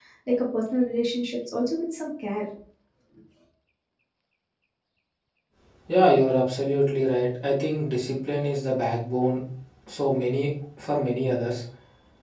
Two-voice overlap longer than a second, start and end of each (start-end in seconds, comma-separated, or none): none